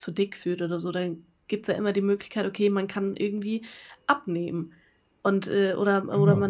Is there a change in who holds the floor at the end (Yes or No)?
No